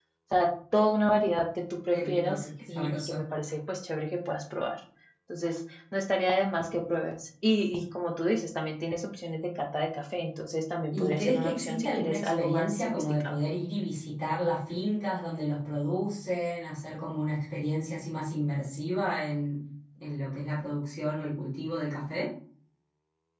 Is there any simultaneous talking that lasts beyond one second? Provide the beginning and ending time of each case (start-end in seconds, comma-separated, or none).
1.9-3.2, 10.9-13.3